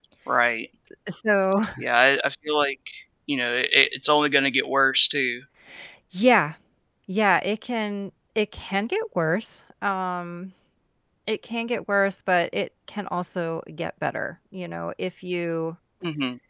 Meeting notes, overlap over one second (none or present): none